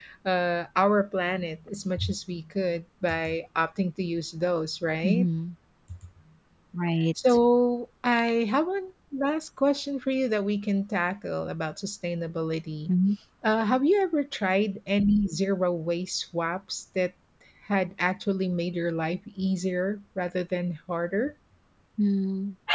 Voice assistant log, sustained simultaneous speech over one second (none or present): none